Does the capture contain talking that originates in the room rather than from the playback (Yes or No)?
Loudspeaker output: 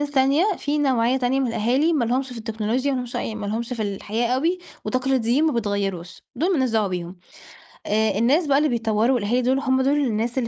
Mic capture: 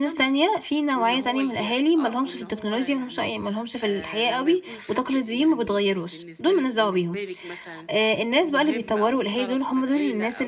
Yes